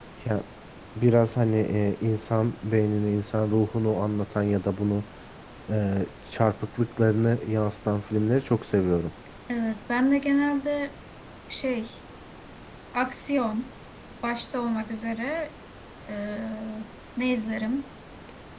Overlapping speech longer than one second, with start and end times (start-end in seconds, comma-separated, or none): none